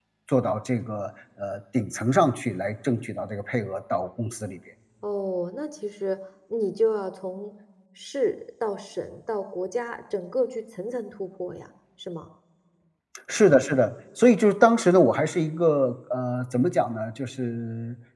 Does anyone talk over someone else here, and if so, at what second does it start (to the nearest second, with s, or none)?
none